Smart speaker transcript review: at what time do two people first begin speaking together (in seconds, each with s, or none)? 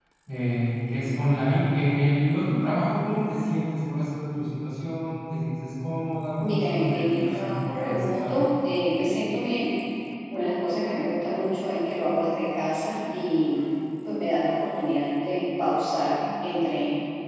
6.4 s